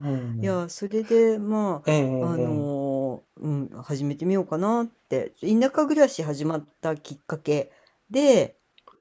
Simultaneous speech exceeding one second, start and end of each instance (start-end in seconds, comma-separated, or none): none